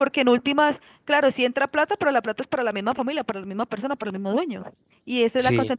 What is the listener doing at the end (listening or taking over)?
listening